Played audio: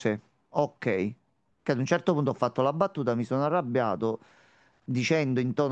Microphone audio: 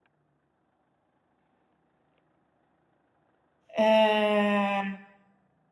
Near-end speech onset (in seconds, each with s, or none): 3.8 s